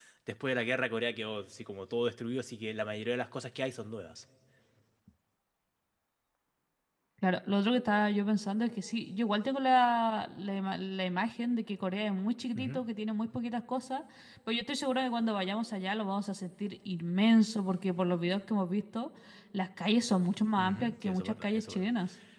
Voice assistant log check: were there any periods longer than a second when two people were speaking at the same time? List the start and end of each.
20.6-21.8

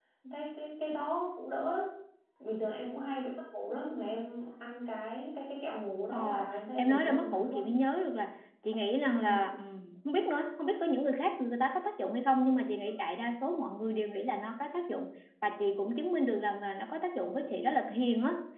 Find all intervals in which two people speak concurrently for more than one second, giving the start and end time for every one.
6.1-7.7

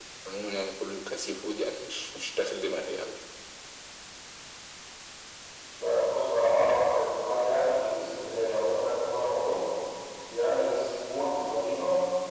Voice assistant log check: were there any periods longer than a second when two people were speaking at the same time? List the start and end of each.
none

